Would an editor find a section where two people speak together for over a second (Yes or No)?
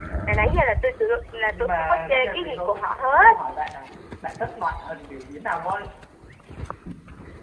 Yes